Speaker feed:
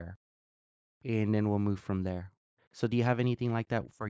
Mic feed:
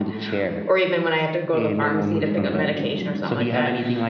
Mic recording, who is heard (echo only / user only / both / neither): both